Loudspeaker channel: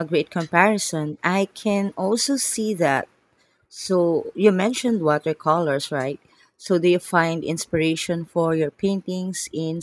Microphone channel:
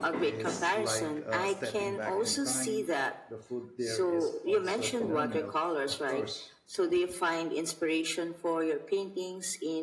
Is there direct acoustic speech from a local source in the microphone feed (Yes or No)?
Yes